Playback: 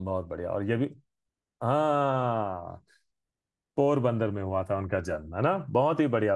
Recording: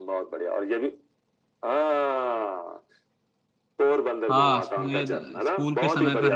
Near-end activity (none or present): present